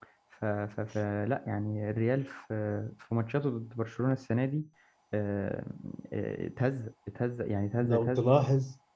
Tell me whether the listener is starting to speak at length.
Yes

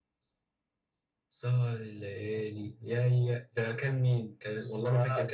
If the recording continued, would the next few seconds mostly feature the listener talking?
Yes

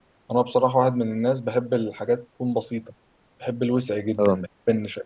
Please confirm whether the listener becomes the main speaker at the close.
No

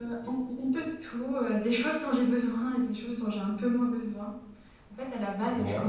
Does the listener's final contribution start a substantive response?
No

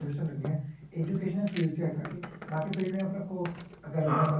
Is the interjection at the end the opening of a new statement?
No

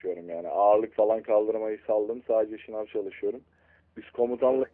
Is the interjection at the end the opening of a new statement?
No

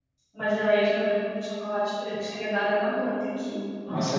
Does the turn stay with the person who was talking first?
No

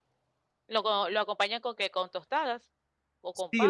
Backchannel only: No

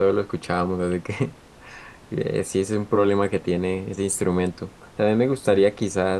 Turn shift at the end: No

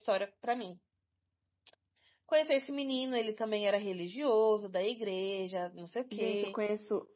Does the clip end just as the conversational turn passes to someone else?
Yes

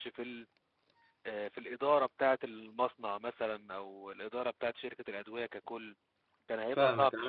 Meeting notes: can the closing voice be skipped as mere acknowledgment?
No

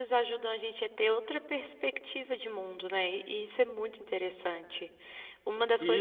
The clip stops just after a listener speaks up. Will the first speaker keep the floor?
No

